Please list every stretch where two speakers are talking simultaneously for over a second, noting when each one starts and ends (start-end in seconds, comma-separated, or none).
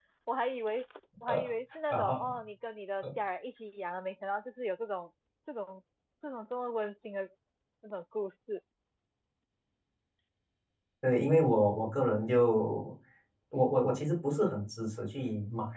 none